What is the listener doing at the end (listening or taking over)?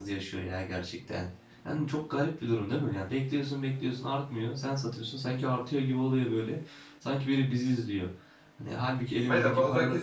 taking over